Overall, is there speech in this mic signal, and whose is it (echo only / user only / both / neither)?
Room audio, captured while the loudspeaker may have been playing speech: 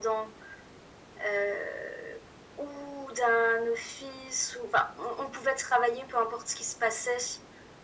echo only